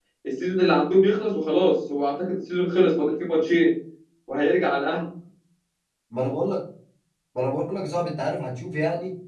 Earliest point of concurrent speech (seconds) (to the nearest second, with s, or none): none